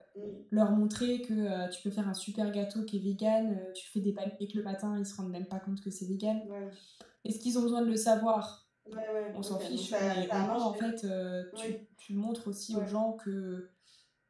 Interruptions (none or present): present